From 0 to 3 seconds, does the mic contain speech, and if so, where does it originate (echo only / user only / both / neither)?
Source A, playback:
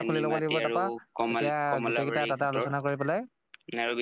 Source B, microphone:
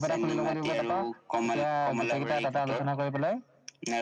echo only